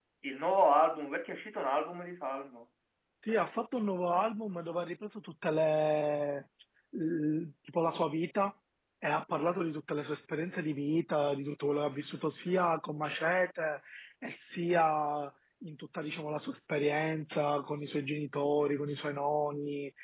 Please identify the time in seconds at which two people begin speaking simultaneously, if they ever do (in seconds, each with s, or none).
none